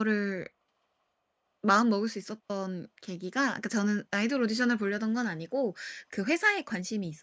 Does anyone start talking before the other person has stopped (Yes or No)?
No